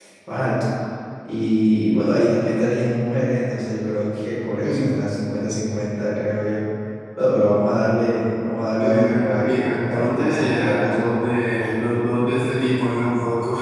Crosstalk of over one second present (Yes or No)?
Yes